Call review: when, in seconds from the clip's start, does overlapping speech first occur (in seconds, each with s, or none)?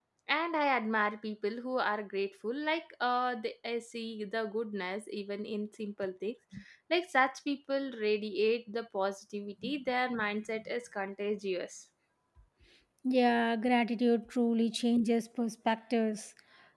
none